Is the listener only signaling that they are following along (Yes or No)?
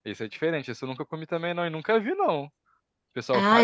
No